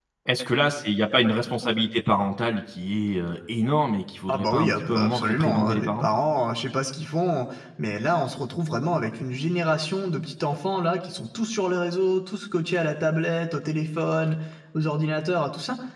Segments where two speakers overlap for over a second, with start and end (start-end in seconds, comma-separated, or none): 4.3-6.1